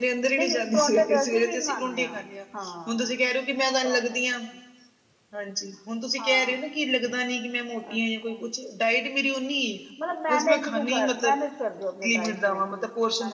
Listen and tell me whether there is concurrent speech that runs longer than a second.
Yes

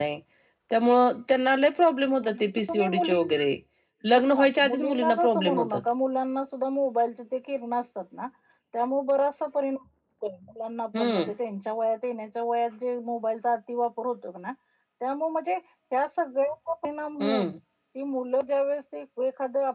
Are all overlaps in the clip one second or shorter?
No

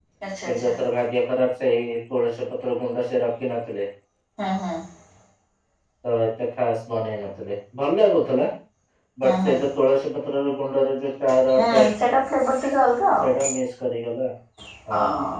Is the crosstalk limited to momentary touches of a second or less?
Yes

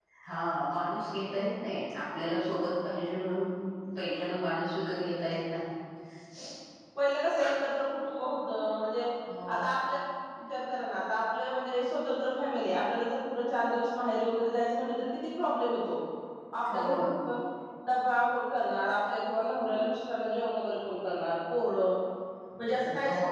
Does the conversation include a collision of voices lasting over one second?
No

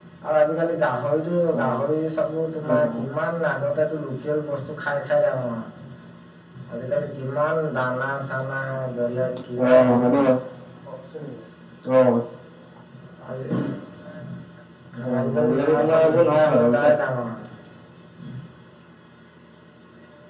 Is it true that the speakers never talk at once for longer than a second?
No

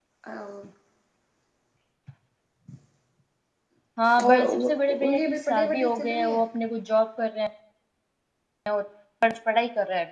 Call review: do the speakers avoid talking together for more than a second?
No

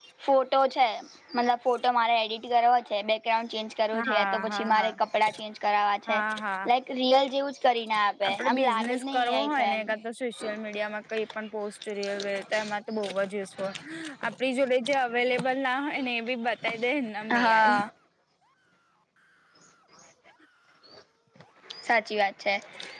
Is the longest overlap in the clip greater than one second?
Yes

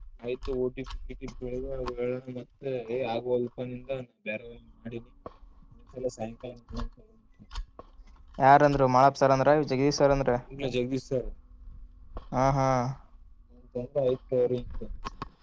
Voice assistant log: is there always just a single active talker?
Yes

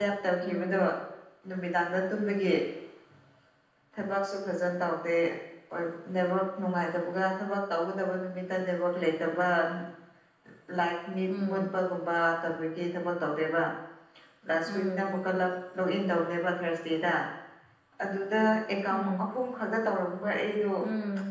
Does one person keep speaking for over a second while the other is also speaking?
No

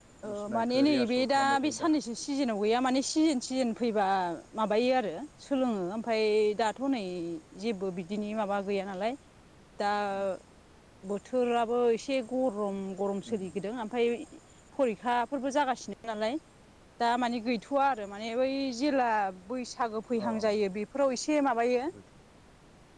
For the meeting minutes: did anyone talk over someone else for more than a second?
Yes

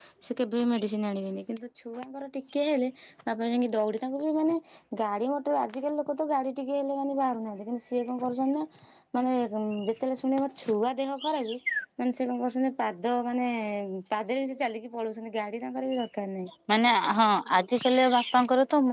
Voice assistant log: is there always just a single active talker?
Yes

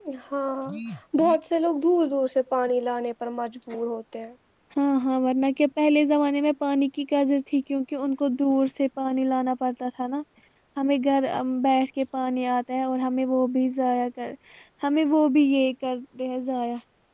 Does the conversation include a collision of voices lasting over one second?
No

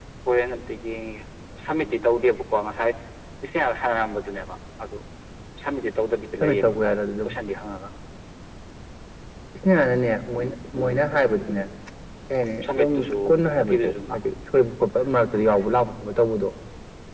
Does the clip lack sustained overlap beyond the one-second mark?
No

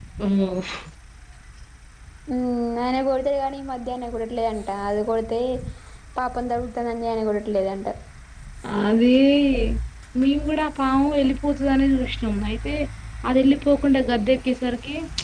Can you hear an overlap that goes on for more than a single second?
No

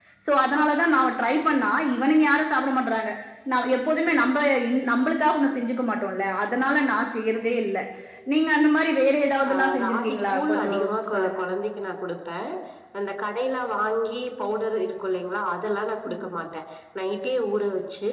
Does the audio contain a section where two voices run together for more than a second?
Yes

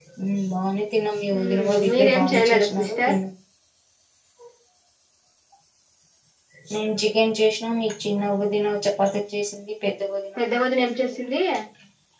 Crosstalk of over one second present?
Yes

